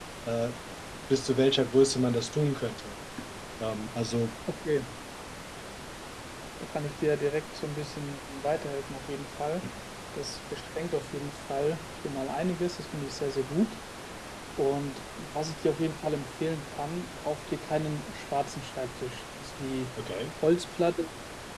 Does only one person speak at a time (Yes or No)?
Yes